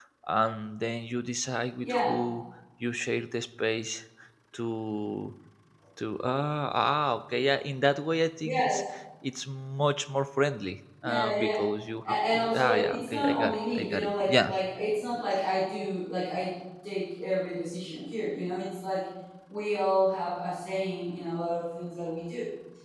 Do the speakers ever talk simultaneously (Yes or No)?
Yes